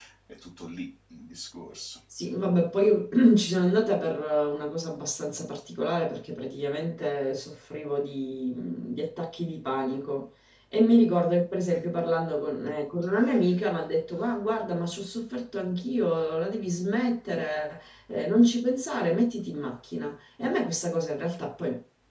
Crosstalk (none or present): none